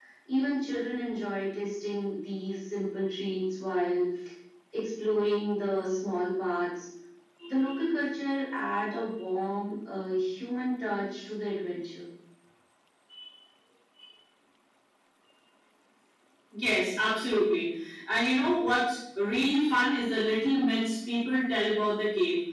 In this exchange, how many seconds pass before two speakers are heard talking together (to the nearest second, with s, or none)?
none